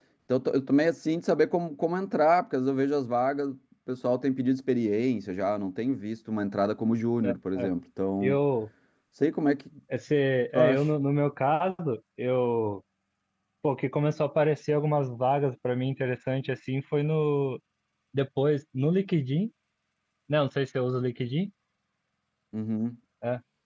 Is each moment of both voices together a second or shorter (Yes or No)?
Yes